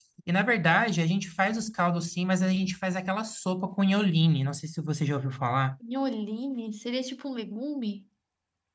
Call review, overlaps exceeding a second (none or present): none